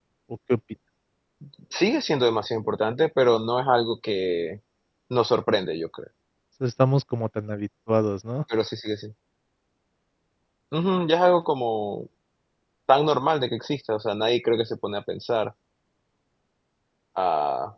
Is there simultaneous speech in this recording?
No

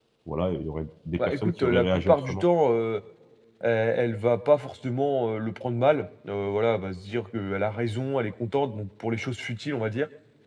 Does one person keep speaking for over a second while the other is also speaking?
Yes, from 1.2 s

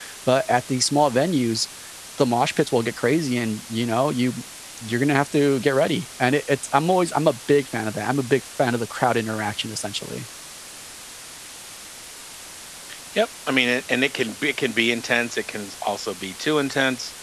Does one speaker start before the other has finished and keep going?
No

